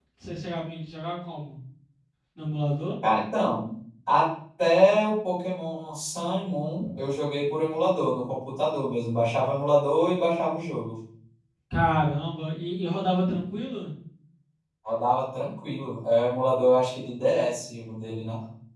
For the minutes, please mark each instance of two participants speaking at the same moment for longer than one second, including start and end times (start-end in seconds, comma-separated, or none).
none